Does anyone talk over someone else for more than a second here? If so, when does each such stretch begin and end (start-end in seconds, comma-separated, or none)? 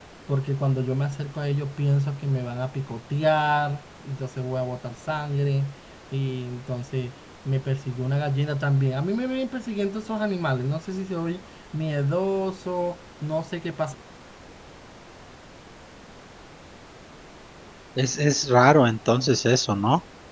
none